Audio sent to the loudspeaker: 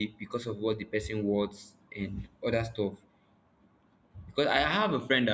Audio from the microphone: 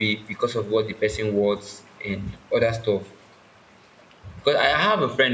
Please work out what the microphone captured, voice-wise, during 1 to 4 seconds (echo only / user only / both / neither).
echo only